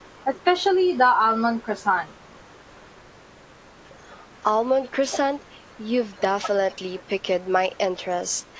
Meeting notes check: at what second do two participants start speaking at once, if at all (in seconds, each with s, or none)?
none